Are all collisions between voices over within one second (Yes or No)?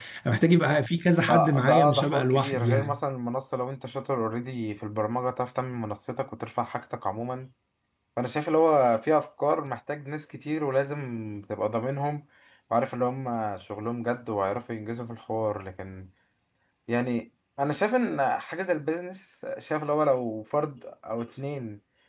No